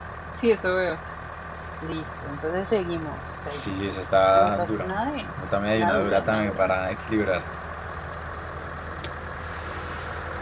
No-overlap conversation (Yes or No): No